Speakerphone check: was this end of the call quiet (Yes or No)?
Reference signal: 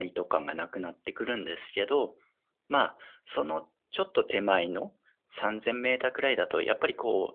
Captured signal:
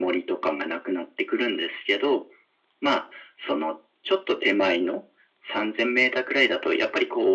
Yes